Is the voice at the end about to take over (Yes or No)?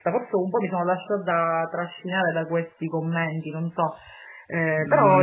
Yes